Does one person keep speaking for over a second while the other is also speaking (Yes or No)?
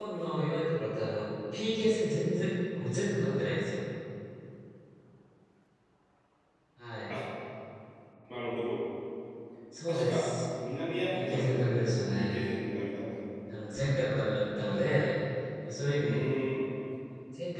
Yes